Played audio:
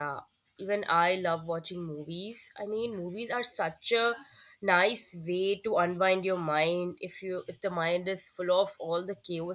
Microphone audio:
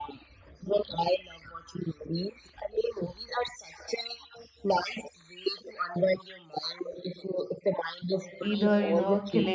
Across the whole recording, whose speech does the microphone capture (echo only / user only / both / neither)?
both